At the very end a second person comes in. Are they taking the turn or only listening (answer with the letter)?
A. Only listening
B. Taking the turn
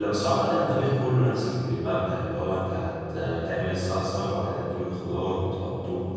B